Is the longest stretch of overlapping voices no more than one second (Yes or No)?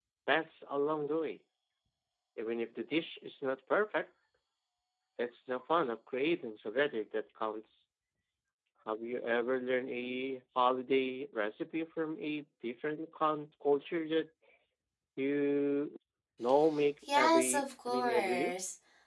No